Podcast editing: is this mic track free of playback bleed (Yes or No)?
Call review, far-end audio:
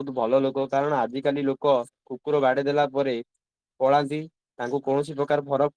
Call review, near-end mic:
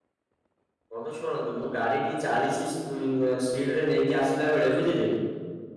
Yes